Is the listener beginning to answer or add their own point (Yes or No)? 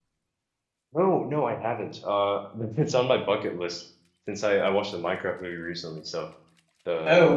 Yes